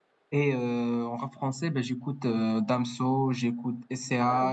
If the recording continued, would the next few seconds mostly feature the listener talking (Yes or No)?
No